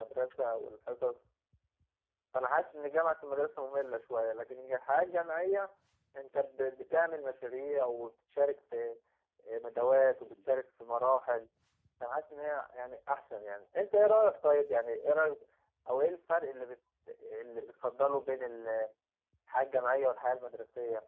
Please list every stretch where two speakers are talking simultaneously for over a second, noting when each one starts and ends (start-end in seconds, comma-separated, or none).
none